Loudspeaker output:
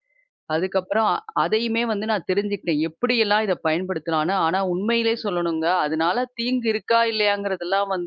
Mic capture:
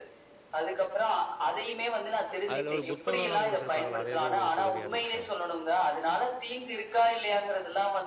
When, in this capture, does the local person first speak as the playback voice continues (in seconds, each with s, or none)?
2.5 s